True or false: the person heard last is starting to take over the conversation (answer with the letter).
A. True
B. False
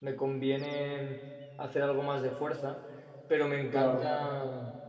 B